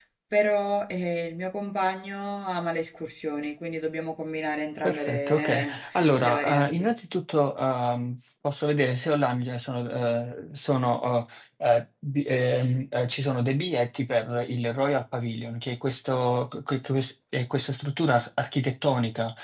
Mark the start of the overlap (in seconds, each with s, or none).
4.8 s